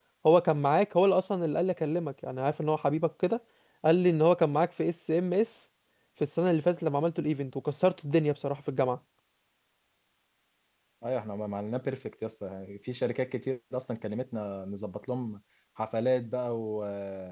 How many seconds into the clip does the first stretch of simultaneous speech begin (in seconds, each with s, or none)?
none